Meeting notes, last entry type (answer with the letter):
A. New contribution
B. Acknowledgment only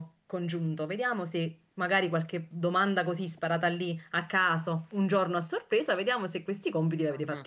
B